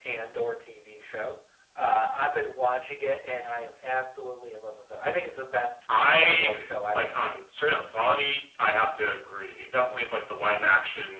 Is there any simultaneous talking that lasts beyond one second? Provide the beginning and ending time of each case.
6.1-7.5

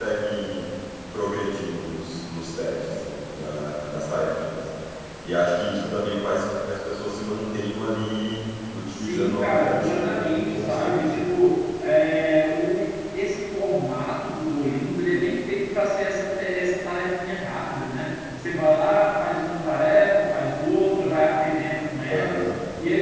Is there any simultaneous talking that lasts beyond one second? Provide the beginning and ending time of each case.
8.9-11.2

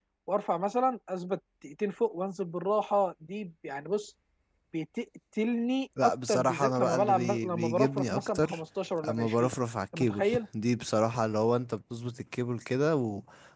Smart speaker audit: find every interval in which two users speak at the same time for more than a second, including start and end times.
6.0-8.6

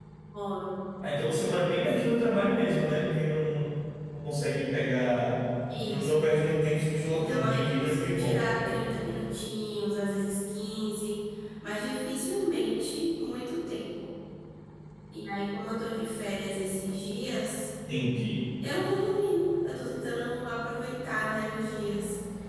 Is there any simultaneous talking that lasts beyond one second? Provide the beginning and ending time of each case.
7.1-8.4

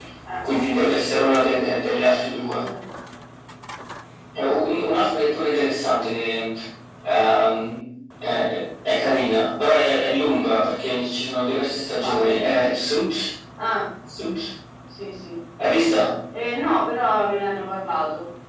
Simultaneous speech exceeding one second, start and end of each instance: none

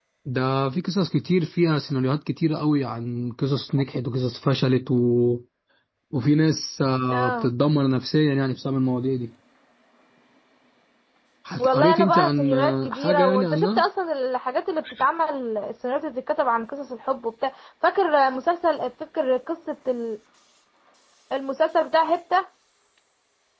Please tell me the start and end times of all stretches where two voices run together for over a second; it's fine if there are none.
11.6-13.8

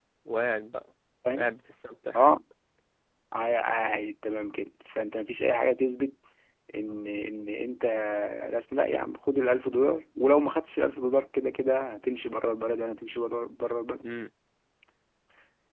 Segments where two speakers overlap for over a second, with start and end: none

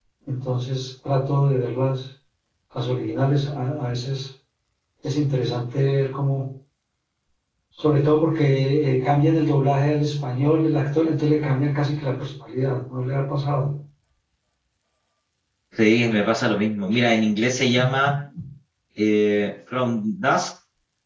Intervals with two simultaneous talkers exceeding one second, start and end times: none

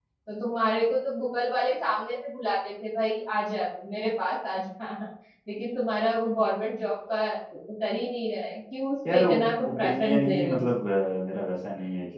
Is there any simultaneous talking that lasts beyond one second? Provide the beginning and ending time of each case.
9.1-10.7

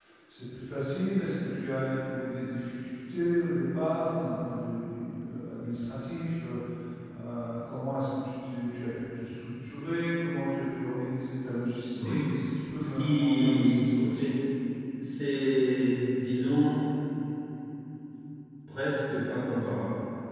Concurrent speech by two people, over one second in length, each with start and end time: 12.8-14.3

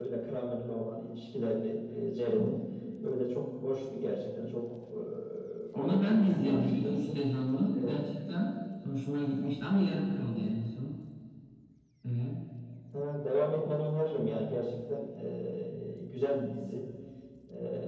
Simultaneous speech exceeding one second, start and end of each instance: 5.8-7.2

